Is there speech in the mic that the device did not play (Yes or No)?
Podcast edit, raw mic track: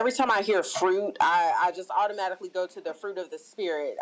No